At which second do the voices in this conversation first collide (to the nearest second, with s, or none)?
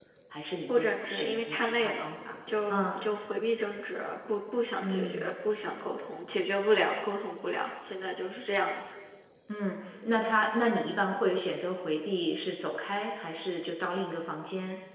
1 s